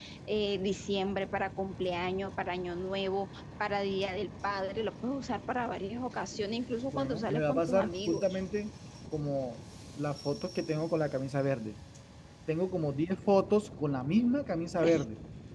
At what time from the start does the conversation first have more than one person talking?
6.9 s

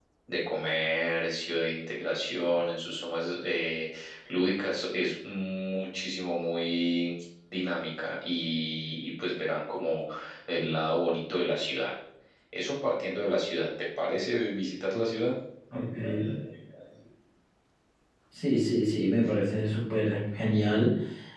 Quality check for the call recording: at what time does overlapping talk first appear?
none

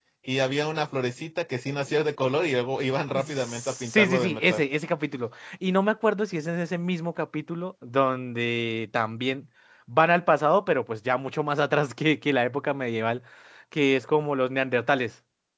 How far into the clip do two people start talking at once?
3.1 s

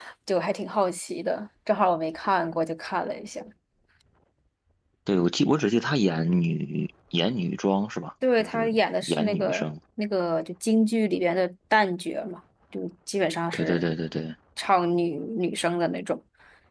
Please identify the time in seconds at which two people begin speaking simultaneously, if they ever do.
8.4 s

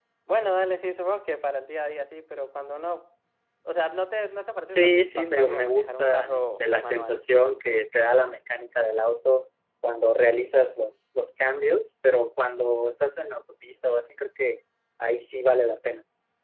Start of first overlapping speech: 4.6 s

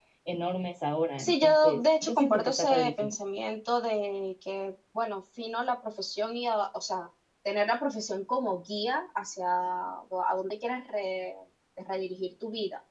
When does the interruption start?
1.2 s

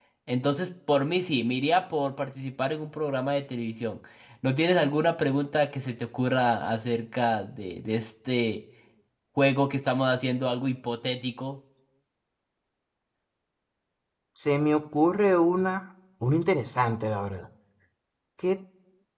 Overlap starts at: none

